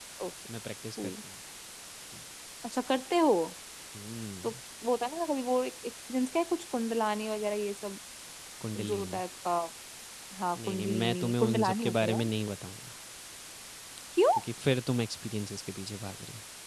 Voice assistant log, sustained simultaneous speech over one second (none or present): present